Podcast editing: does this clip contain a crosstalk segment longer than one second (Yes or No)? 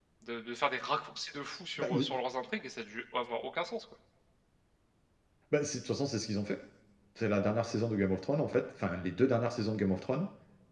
No